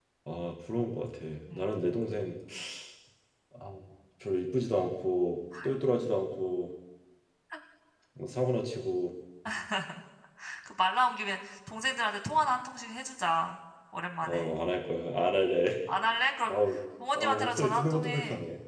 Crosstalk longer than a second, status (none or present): present